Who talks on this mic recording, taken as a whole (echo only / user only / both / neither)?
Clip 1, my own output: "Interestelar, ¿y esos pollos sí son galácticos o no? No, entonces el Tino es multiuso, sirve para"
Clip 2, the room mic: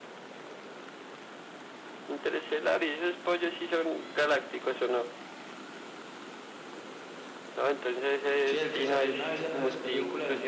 both